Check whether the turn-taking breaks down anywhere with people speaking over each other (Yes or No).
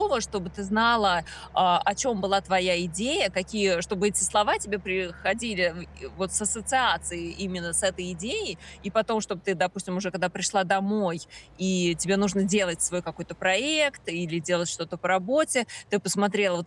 No